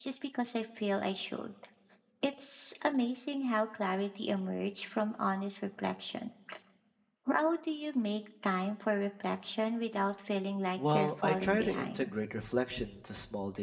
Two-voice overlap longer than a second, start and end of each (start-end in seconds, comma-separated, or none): 10.8-12.1